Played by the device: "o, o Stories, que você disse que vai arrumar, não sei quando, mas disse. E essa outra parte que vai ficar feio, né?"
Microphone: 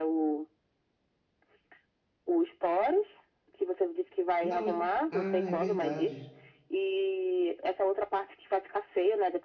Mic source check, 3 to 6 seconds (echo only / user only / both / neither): both